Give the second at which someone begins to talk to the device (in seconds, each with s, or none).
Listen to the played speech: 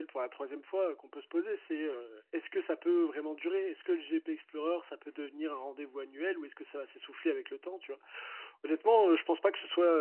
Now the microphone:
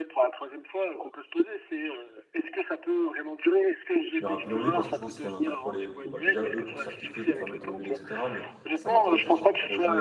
4.2 s